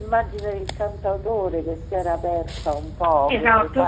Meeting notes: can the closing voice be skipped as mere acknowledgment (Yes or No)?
No